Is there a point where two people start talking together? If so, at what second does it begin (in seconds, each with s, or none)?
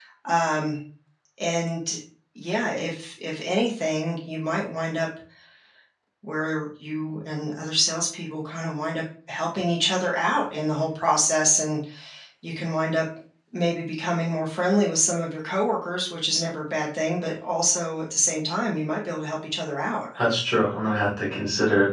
none